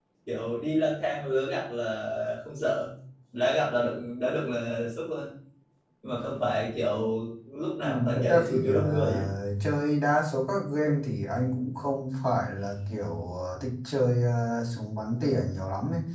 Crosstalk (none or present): present